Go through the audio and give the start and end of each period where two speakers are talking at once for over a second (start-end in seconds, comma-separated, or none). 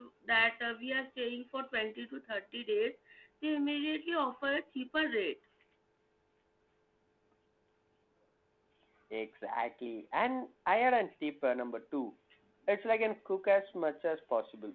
none